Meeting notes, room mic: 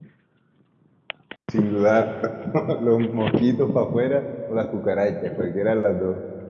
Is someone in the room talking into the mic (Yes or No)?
Yes